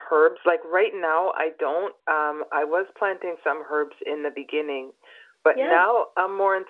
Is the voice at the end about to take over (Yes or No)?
No